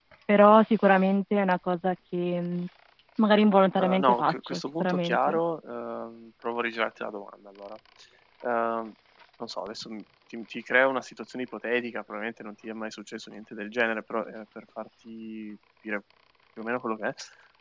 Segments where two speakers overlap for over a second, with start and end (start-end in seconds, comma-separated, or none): 3.8-5.4